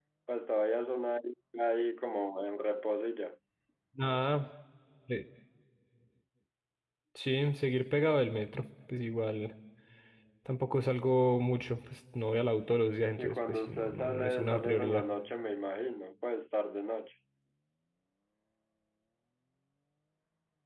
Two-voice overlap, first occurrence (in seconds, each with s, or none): 13.2 s